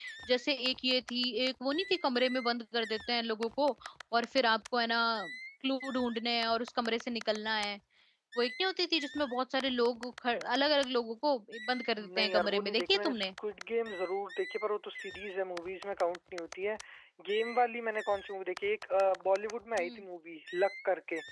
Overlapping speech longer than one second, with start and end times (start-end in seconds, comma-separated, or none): 12.0-13.3